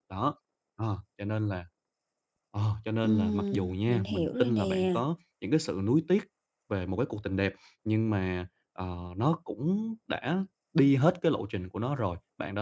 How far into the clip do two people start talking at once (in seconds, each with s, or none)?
3.0 s